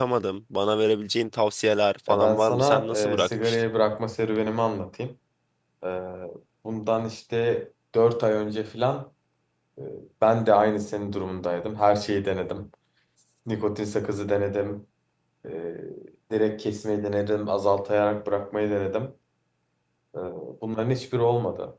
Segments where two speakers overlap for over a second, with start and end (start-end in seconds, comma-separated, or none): 2.1-3.6